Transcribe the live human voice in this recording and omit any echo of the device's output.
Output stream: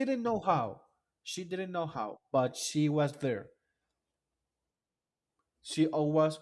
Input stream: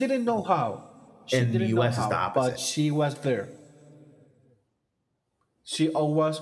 In the U.S., it's the opposite.

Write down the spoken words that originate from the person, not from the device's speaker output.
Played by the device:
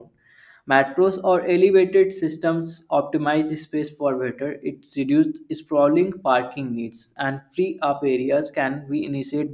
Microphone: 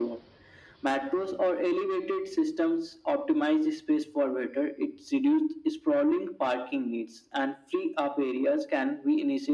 none

